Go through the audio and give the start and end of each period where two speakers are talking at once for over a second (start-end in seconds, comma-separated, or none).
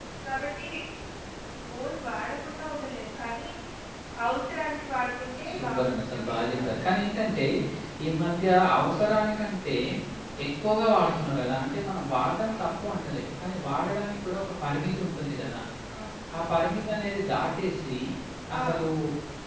5.5-6.8